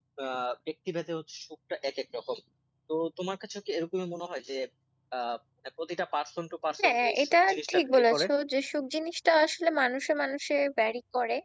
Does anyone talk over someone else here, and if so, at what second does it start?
7 s

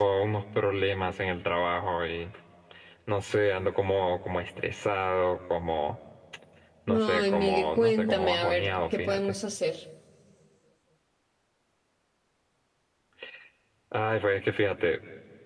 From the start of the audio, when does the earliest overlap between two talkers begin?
7 s

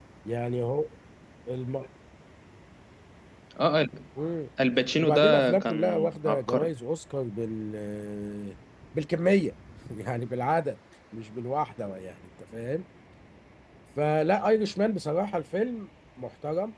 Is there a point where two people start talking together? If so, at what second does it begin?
5 s

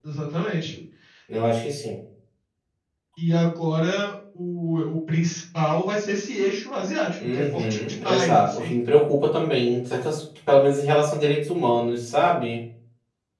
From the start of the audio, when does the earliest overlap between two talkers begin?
7 s

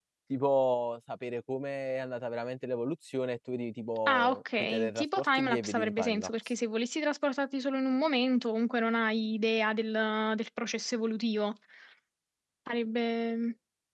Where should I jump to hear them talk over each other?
4 s

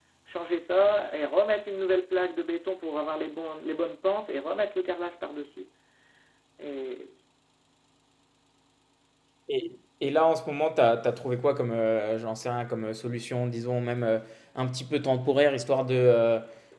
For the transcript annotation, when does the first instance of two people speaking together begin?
none

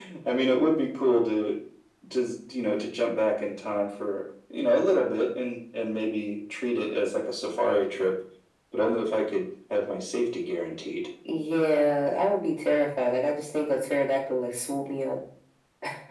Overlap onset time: none

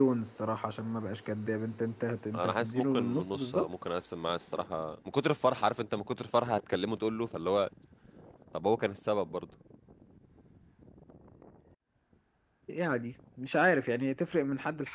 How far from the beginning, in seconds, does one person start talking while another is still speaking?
2 s

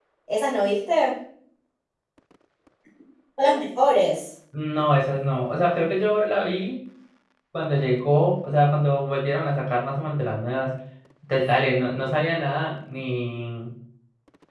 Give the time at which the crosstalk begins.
none

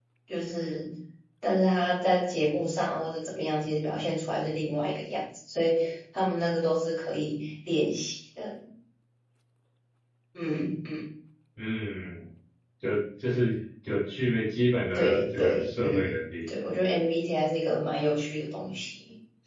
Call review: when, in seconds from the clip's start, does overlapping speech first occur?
15 s

